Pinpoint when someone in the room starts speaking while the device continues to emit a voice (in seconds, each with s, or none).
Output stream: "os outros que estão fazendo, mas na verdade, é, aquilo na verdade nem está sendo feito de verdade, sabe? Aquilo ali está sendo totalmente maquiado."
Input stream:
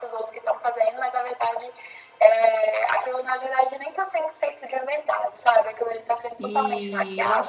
6.4 s